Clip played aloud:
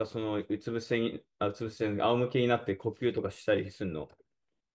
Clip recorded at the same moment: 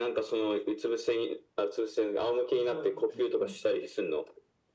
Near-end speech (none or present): present